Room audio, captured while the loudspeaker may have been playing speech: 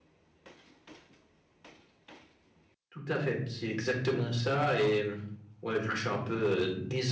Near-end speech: none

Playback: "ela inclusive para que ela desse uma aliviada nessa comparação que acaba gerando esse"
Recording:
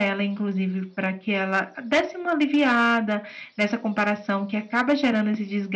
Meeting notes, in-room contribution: none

